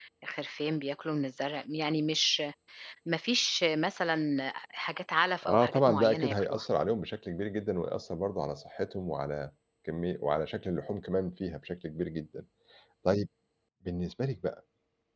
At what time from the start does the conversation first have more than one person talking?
5.4 s

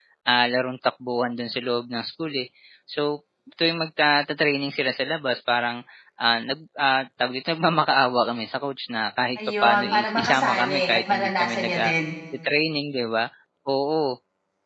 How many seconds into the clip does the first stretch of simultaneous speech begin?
9.4 s

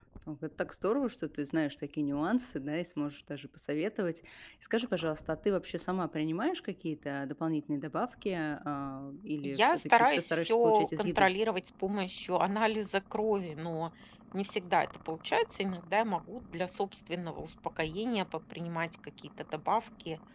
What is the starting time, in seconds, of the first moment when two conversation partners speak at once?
9.4 s

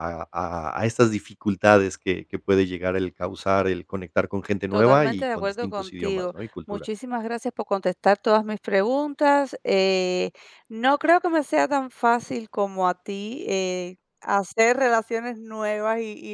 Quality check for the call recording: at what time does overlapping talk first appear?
4.7 s

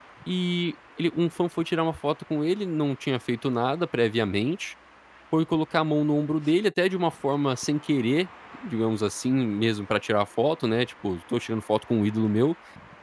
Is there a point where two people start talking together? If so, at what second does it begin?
none

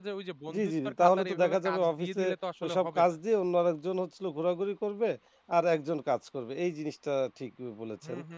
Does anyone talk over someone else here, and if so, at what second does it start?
0.6 s

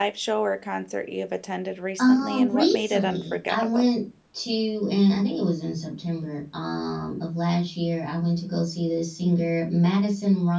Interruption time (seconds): 2.0 s

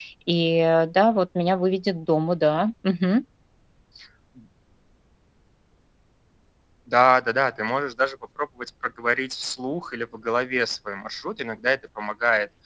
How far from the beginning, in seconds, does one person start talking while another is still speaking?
none

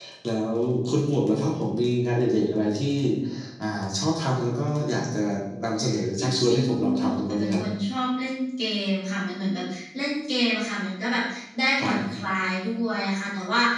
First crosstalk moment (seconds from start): 6.2 s

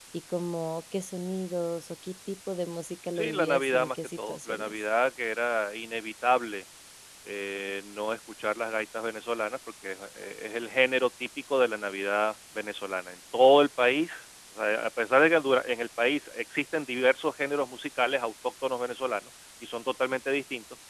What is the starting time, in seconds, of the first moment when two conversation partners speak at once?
3.2 s

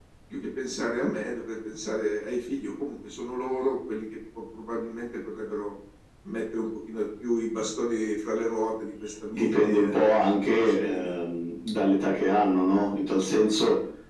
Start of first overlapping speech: 9.3 s

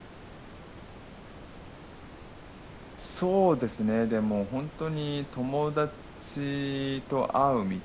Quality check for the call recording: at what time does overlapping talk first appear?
none

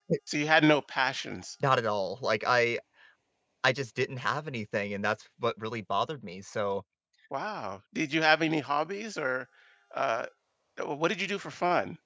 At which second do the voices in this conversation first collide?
none

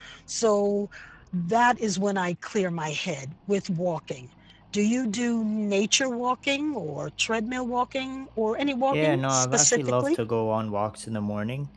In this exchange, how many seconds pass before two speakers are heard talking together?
8.9 s

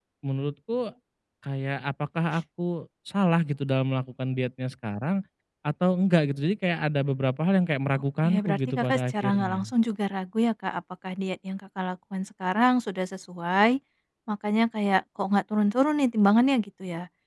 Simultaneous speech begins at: 8.2 s

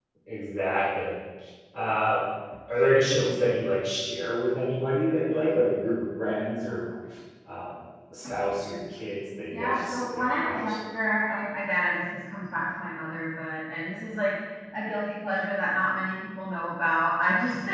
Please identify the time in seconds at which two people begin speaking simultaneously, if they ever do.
9.5 s

